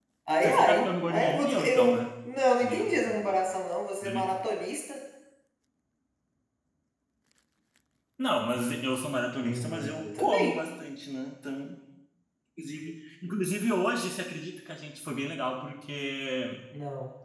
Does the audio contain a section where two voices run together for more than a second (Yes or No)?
Yes